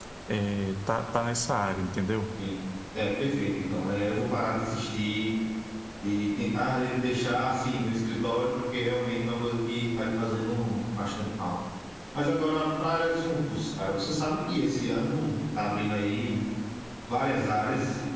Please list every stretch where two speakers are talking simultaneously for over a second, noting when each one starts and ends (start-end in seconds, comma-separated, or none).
none